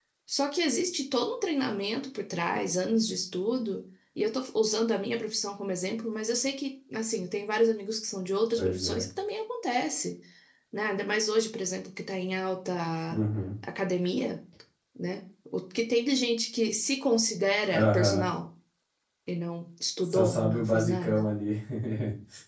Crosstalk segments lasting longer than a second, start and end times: 20.0-21.3

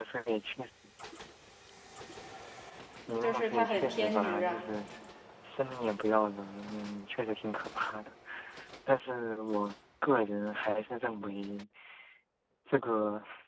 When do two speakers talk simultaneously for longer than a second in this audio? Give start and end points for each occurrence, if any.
3.2-4.6

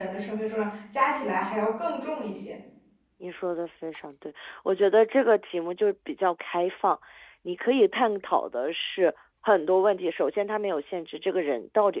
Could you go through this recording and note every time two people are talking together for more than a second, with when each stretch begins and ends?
none

